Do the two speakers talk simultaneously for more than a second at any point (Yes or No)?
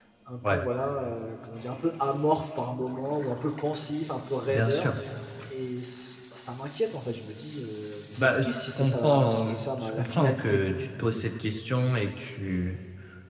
Yes